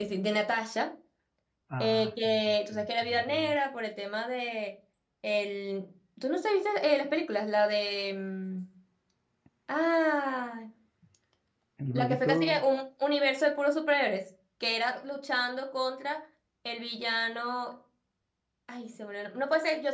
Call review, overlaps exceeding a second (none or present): present